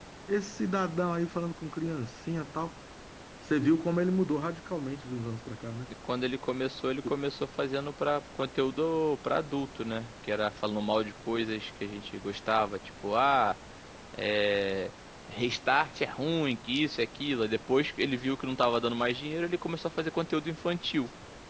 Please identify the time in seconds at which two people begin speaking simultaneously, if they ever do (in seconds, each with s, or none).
none